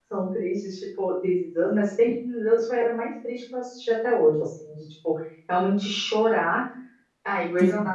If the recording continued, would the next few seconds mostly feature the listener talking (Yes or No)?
No